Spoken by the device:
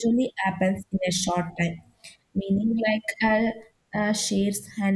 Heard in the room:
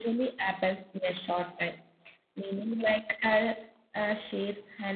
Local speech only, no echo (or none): none